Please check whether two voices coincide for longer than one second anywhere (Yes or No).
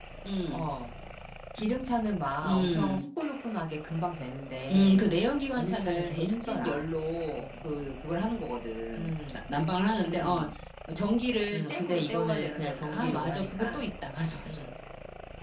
Yes